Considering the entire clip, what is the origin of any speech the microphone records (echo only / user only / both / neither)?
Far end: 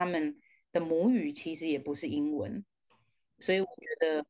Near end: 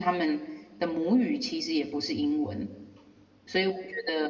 echo only